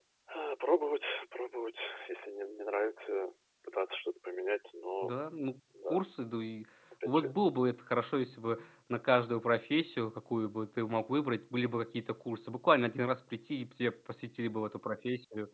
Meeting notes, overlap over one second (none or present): none